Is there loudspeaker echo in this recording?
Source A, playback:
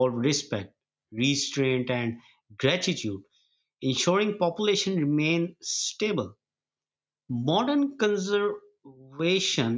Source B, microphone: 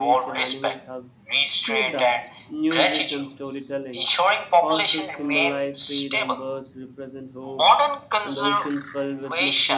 Yes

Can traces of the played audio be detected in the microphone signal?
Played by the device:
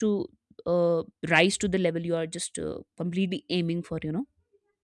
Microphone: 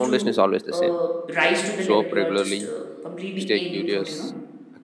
Yes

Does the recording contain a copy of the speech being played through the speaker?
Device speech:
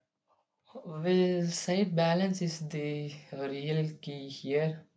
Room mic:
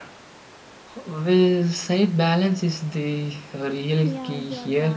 Yes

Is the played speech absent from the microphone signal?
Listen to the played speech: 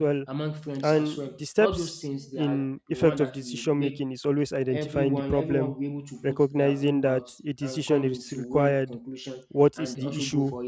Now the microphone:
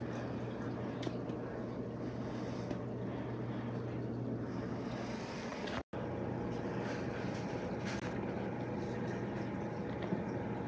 Yes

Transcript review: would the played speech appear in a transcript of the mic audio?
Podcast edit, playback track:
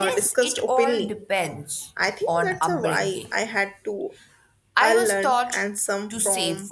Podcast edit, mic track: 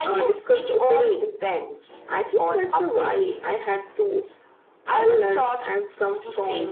Yes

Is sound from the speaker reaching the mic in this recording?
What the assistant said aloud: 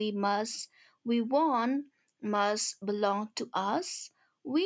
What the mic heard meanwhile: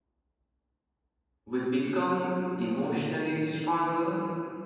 No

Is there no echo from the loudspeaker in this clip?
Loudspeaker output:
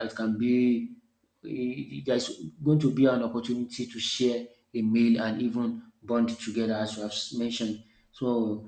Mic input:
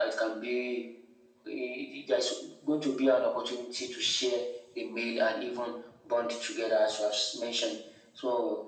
No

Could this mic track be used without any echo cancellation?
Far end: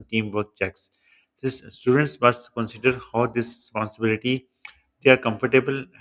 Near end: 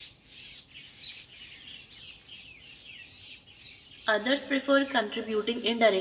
Yes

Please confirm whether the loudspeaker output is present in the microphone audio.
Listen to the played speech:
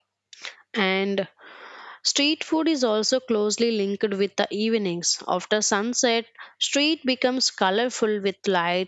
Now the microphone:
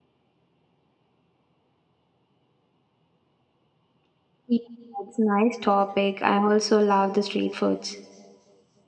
No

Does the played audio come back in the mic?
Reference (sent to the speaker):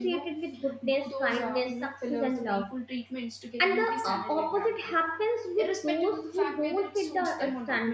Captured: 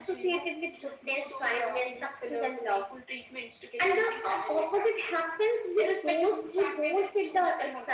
Yes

